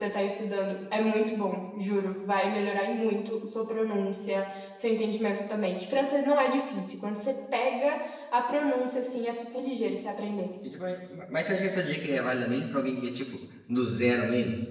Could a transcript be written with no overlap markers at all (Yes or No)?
Yes